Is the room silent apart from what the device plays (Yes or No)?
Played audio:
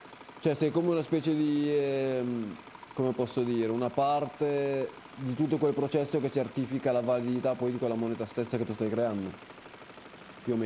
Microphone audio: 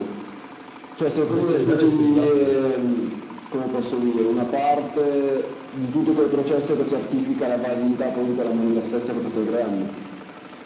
No